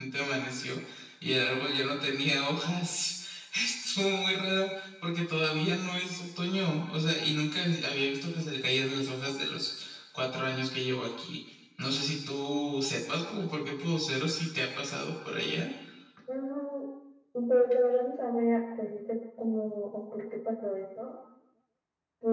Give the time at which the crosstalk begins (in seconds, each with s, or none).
none